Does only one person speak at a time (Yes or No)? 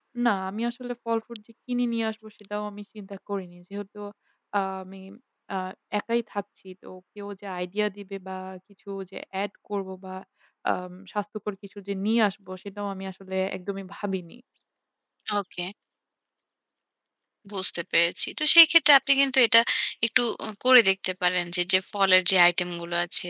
Yes